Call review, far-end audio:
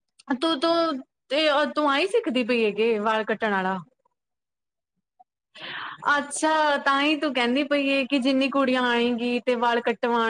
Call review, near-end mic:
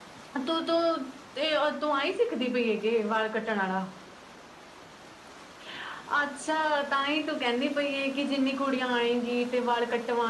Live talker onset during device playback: none

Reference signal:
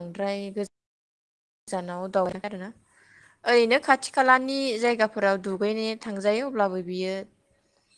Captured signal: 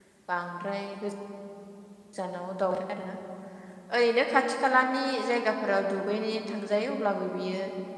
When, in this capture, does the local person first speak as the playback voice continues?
none

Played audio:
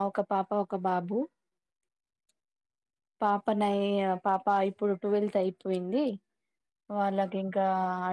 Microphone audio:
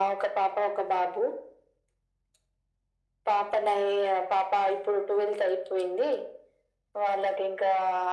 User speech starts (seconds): none

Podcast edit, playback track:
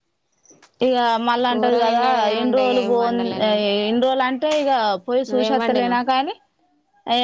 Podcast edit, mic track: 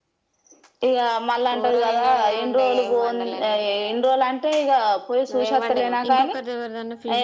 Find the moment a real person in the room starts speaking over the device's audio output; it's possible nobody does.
6.1 s

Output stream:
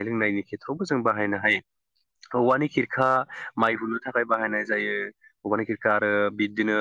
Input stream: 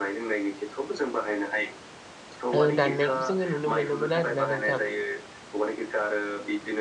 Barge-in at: 2.6 s

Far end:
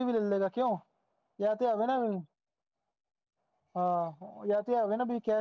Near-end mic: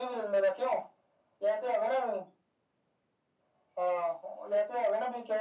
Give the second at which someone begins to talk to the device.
none

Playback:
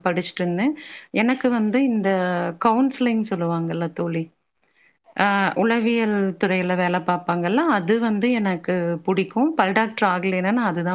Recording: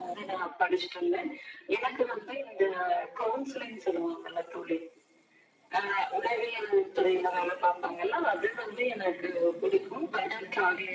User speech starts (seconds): none

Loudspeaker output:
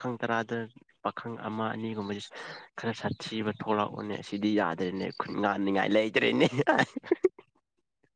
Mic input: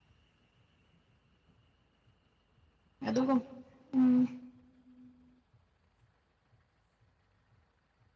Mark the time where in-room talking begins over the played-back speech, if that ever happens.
3.1 s

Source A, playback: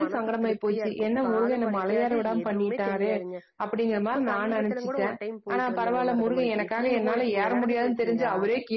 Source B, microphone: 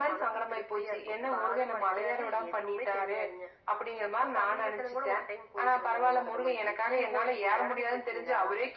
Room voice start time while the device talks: none

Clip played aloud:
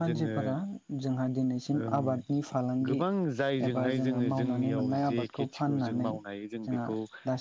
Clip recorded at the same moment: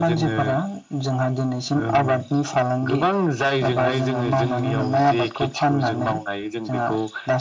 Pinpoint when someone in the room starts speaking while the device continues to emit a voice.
none

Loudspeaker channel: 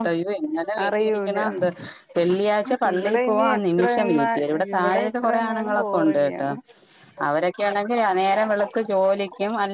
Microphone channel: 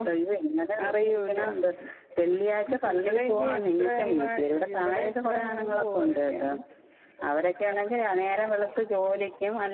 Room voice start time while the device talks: none

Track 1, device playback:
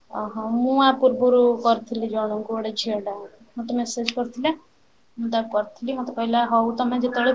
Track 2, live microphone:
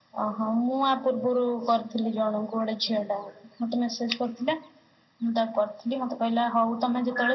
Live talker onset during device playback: none

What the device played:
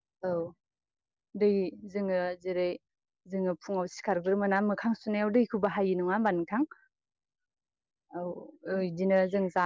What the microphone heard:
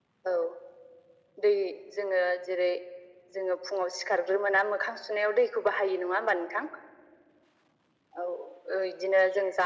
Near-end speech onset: none

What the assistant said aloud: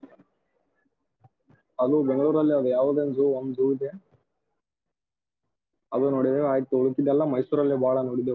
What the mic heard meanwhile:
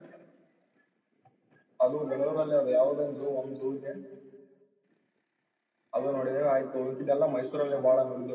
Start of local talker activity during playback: none

